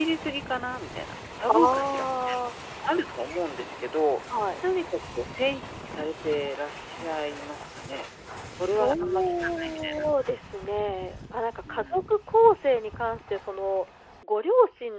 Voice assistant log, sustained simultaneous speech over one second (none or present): present